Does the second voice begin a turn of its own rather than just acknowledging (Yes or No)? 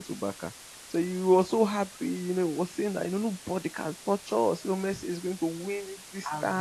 No